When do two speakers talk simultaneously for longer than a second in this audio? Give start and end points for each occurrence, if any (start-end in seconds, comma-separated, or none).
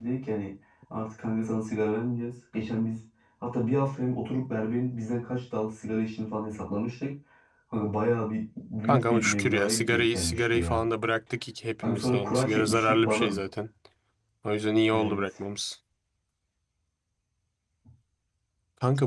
8.8-10.8, 11.8-13.4